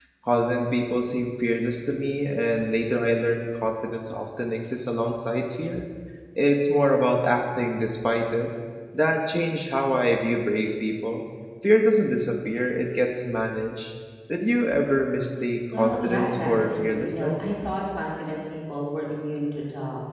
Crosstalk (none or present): present